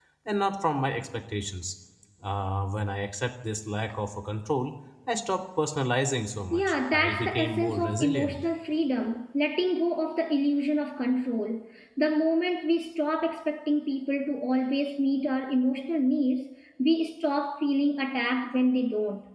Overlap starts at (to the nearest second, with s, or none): 7 s